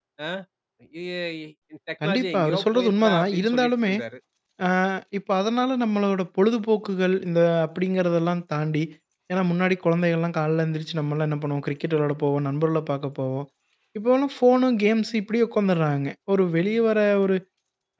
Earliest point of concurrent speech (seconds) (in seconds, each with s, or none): 2.0 s